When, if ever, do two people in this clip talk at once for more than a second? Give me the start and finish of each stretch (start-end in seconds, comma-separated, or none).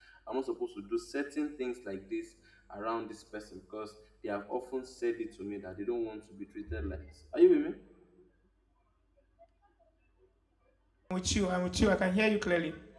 none